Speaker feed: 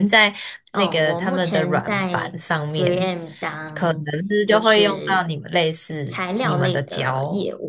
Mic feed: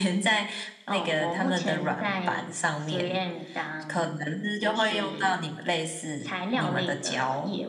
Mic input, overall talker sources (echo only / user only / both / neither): echo only